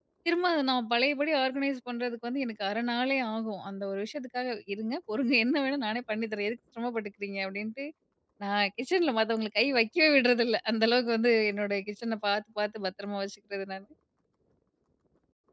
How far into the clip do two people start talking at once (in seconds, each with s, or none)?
none